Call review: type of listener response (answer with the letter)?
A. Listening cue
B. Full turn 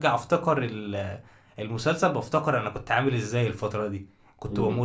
A